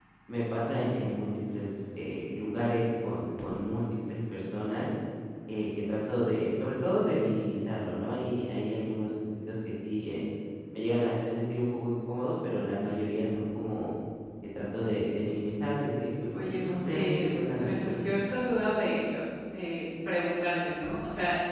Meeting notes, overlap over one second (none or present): present